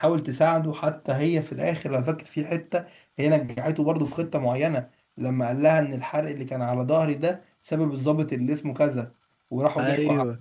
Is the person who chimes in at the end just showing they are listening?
Yes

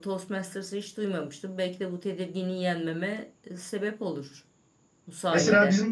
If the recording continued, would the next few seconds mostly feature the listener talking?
Yes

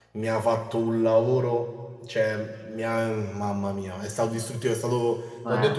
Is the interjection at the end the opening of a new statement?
No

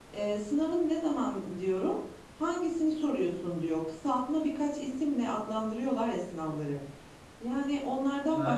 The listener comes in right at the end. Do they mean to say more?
No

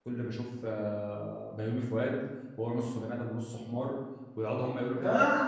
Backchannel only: Yes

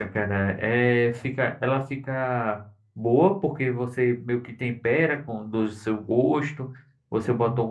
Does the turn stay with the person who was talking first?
Yes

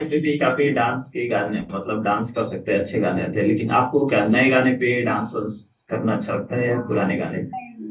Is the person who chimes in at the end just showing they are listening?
No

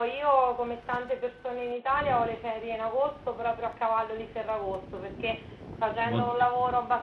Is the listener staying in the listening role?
Yes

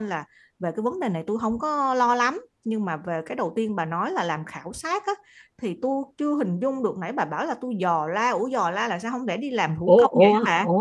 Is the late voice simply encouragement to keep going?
No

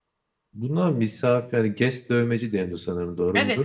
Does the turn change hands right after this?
Yes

